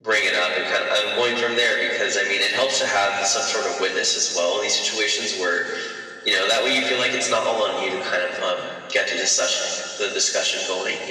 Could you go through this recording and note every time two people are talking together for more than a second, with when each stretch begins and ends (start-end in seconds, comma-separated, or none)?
none